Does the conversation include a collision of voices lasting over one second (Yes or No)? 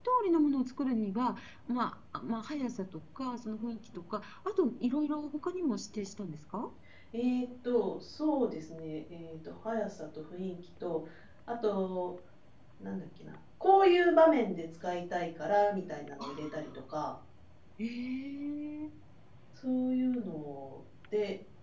No